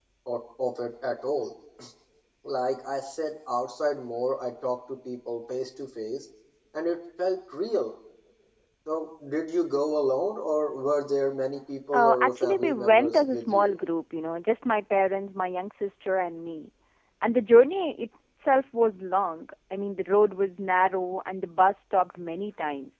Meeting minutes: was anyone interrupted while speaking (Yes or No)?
Yes